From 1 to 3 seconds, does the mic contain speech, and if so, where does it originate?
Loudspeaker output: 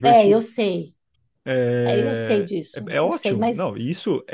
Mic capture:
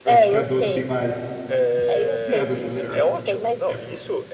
both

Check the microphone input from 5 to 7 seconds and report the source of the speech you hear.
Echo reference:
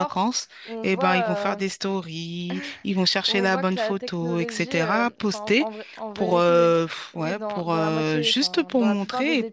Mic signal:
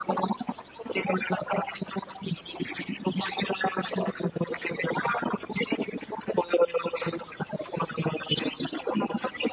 echo only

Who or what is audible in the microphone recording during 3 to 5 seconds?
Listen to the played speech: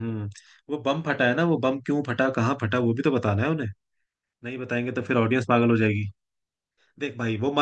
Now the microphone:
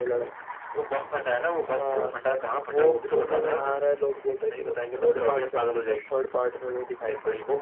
both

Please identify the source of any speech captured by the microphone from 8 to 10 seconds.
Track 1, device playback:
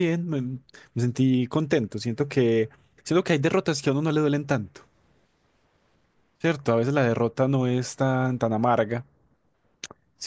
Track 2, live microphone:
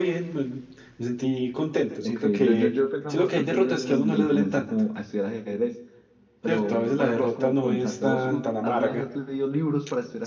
both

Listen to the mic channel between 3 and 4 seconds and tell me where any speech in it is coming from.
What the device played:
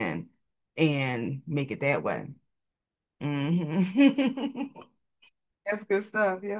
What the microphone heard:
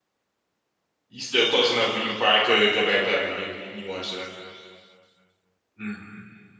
user only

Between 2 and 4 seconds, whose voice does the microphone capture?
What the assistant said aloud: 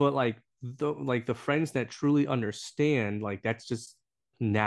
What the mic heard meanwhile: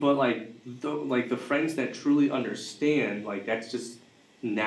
echo only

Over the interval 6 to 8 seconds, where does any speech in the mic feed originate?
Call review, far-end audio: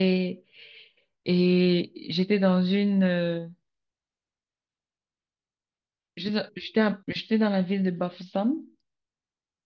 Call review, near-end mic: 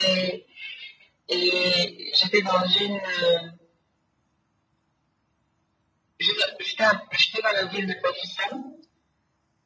echo only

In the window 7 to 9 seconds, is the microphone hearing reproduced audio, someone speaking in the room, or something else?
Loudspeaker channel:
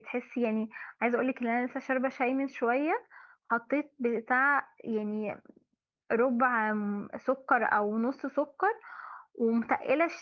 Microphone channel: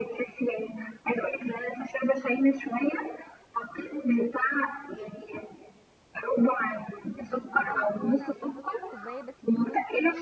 both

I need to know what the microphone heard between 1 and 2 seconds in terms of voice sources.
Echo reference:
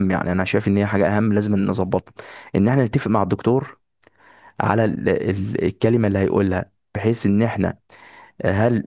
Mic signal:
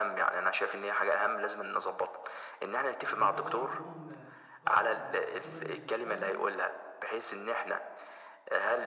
echo only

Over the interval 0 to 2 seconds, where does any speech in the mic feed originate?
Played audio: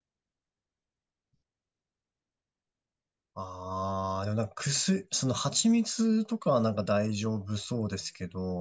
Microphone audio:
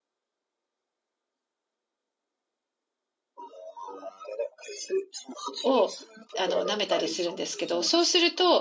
neither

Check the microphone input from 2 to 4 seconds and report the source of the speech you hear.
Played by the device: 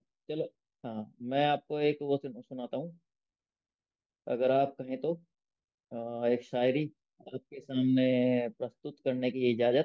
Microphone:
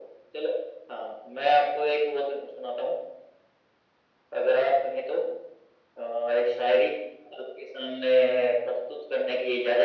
echo only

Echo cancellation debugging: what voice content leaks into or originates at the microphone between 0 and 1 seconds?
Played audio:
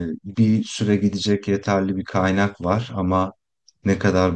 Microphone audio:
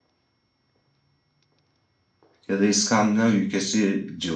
neither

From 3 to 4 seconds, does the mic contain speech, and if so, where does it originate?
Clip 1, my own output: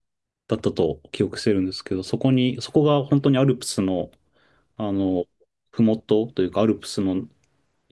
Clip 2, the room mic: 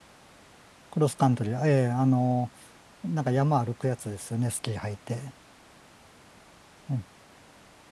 user only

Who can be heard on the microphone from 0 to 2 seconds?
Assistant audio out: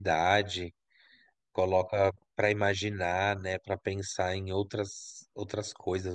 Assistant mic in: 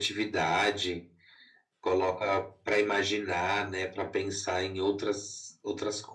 echo only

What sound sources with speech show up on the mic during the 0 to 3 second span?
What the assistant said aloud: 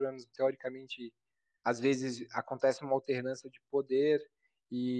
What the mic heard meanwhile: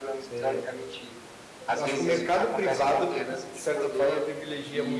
both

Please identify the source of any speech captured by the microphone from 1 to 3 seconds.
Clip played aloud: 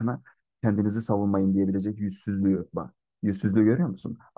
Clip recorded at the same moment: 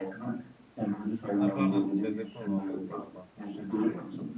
both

